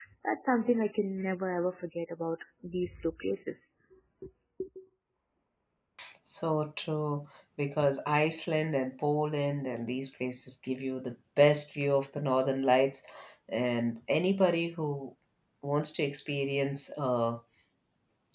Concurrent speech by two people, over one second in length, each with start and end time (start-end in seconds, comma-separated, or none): none